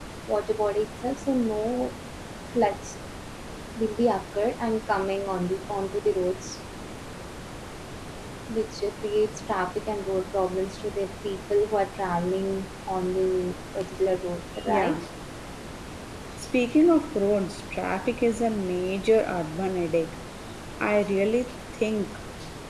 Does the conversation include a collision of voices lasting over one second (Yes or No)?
No